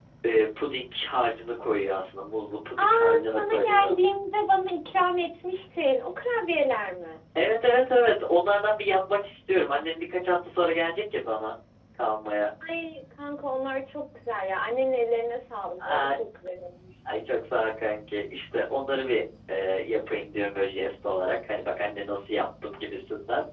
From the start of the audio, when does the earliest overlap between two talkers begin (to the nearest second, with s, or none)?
3 s